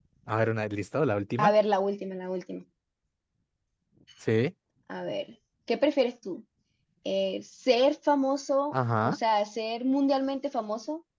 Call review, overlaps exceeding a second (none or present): none